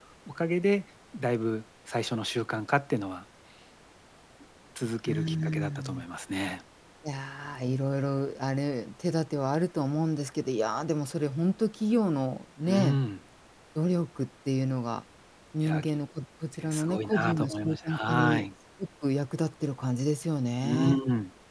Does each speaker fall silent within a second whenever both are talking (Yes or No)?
No